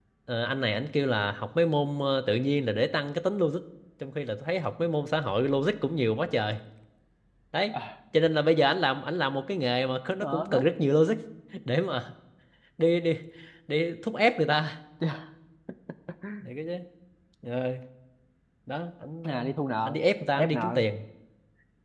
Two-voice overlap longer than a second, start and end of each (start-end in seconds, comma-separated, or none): none